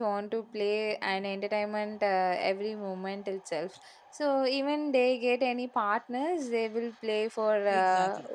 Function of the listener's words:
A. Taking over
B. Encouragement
A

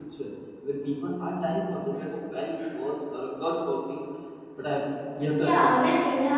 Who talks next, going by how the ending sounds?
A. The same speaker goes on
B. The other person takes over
B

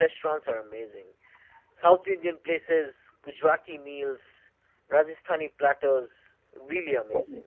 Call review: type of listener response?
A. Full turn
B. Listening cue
A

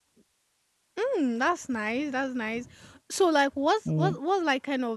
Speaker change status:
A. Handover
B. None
B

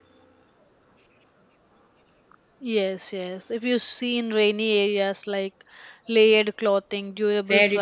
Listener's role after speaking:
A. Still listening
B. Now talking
B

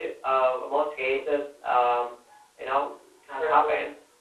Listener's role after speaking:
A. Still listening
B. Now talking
A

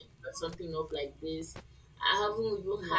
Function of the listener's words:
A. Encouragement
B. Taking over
A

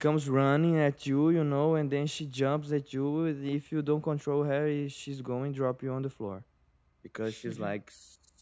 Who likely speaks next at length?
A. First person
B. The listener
A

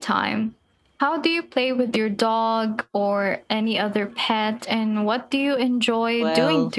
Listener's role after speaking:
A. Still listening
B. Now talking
B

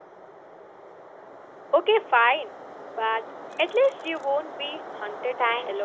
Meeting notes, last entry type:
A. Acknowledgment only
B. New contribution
B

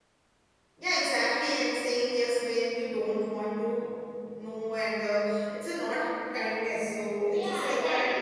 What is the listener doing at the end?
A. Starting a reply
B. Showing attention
A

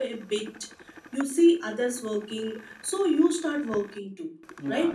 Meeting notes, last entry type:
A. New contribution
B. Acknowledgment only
A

